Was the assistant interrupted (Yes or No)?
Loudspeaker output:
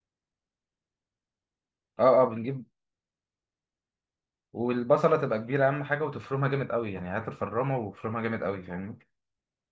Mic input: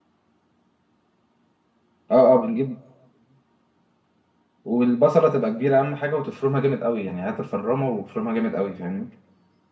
No